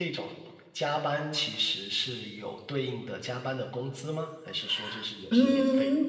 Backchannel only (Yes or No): No